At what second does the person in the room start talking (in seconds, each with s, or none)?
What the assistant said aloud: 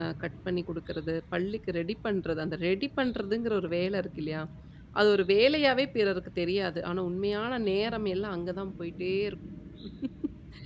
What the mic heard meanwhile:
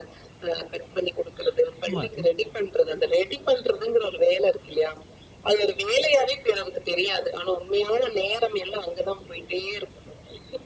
1.9 s